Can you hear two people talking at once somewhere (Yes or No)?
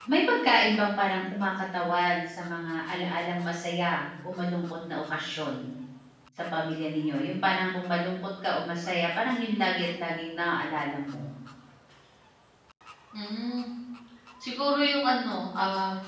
No